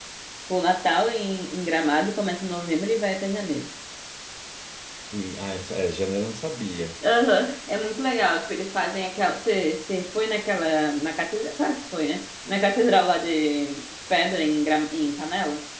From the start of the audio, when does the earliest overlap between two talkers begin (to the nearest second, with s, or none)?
none